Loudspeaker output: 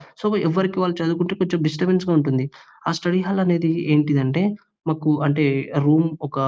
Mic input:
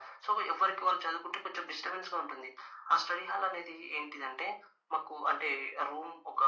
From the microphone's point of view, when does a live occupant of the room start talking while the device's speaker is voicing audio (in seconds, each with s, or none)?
none